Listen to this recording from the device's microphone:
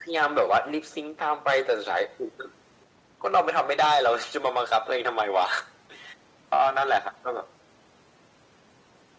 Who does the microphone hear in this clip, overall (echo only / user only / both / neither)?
echo only